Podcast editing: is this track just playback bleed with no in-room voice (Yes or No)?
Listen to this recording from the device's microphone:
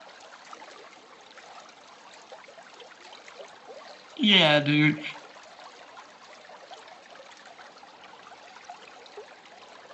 No